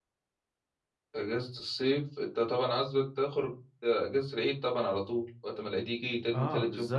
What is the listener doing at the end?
taking over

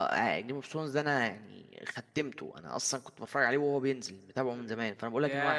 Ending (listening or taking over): taking over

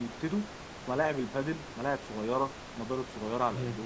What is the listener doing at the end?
listening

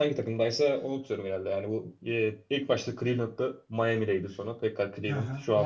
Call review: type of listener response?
taking over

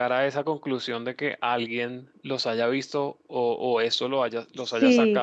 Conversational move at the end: taking over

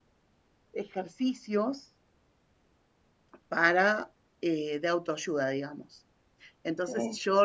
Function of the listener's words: listening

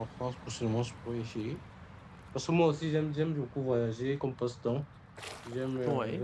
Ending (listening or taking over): listening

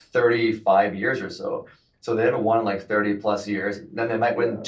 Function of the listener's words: listening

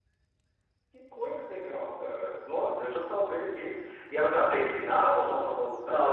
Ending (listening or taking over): taking over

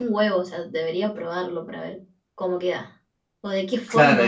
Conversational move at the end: taking over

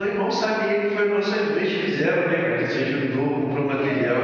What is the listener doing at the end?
listening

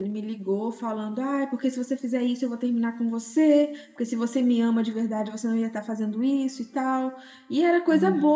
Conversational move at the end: listening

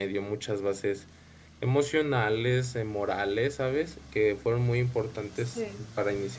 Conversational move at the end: listening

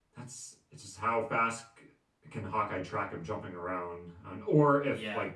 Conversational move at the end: listening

